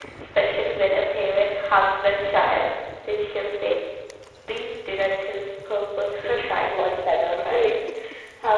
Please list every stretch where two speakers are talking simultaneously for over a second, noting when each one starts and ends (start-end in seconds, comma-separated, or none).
6.4-7.7